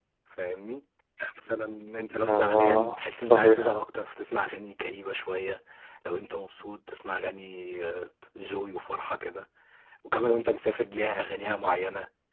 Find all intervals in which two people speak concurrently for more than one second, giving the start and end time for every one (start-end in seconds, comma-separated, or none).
2.2-3.7